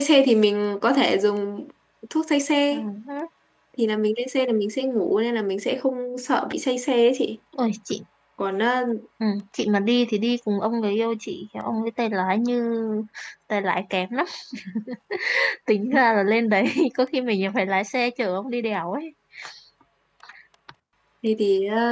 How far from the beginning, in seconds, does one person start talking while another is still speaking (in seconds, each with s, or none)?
none